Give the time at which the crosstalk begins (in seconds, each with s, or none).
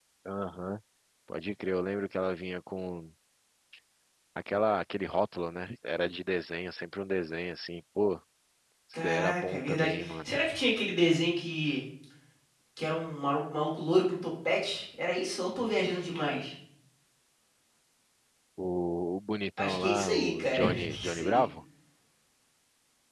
9.0 s